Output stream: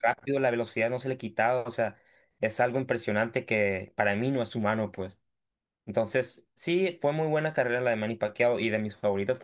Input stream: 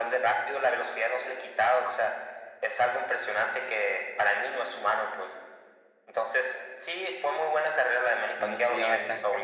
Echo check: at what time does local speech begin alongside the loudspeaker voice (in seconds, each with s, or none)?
8.3 s